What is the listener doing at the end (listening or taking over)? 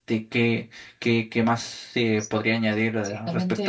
taking over